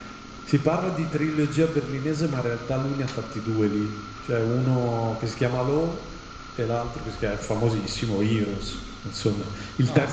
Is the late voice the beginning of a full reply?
No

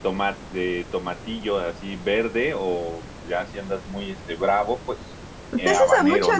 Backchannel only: No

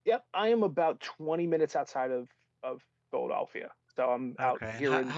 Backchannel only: No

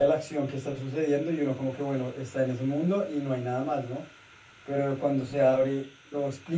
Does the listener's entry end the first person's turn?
No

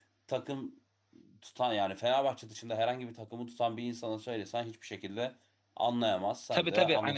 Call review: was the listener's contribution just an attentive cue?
No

